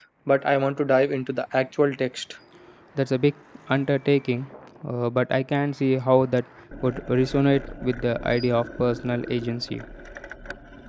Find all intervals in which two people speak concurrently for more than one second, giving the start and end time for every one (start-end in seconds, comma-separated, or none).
none